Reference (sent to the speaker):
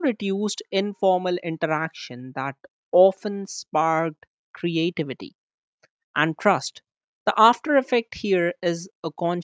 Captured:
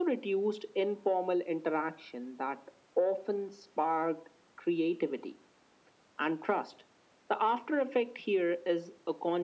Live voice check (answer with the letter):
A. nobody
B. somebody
A